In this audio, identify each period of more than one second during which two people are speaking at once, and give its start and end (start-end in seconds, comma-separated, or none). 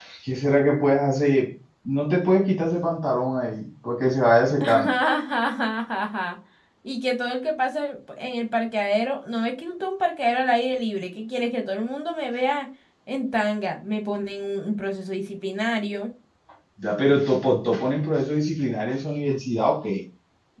none